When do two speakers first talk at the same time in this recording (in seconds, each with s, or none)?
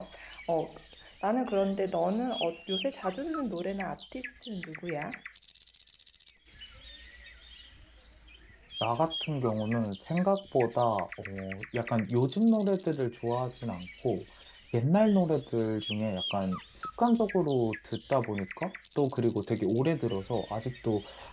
none